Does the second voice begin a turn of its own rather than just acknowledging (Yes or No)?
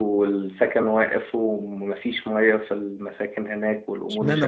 Yes